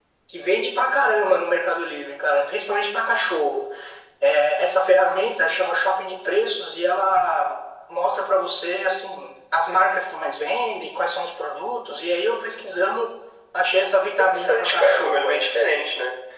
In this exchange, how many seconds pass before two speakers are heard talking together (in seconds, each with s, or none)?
14.2 s